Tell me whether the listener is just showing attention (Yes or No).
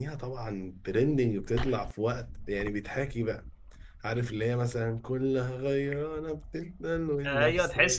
No